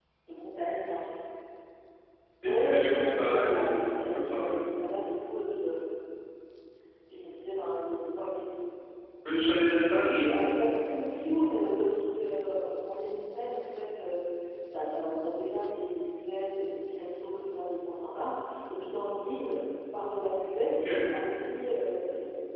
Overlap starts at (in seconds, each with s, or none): 2.4 s